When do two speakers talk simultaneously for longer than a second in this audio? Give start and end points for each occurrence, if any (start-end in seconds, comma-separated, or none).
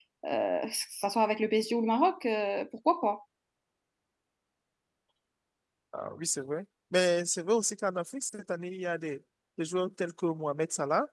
none